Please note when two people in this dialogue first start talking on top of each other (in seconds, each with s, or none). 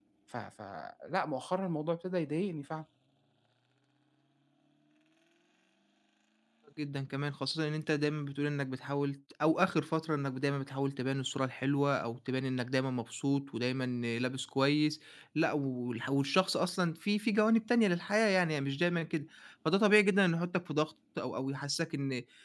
none